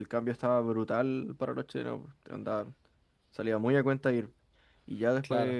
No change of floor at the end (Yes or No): Yes